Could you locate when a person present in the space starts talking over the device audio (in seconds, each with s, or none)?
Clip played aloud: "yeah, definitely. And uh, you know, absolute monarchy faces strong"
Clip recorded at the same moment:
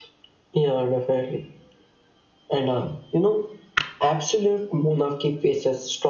none